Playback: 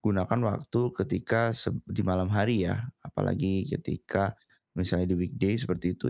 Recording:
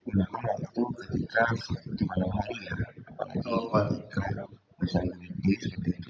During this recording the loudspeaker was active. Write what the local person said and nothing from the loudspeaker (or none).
betul,